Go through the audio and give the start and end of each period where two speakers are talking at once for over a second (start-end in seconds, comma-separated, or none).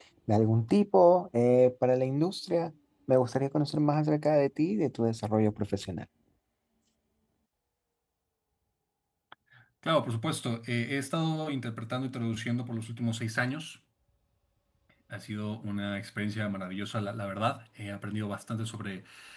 none